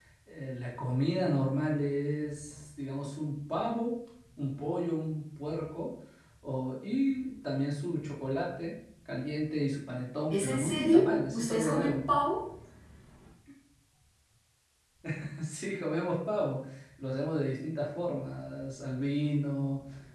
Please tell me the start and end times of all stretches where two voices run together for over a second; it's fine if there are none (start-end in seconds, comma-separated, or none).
10.3-12.1